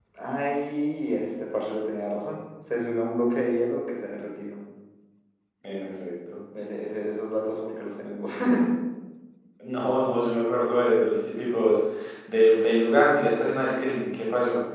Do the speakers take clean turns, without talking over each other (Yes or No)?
Yes